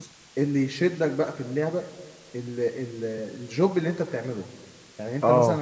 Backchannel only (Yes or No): Yes